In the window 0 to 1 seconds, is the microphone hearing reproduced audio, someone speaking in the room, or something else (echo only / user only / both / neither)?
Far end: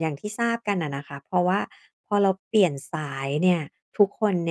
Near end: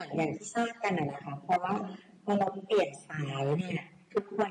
echo only